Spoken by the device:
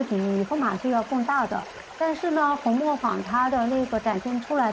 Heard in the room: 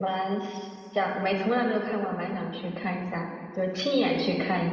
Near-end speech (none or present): present